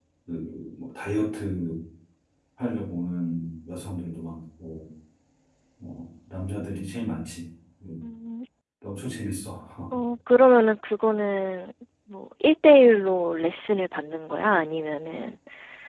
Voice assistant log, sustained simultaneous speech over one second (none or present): none